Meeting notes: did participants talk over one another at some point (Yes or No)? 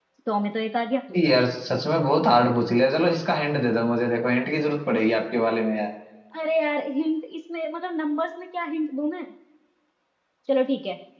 No